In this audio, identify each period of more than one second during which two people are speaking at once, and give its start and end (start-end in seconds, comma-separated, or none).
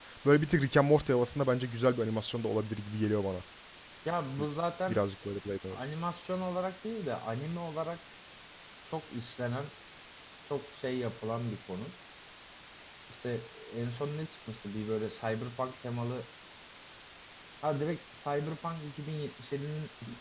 none